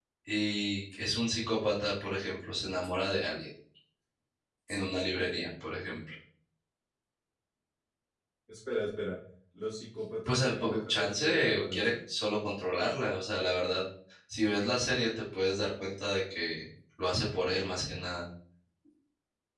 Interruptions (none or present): present